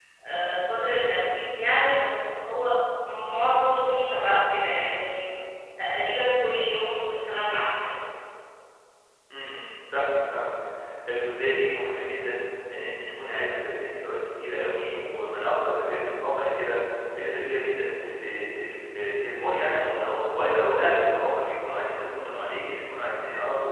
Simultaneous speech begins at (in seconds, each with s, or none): none